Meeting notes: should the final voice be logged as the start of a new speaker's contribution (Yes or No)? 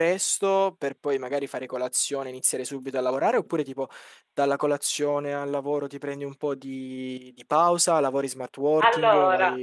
Yes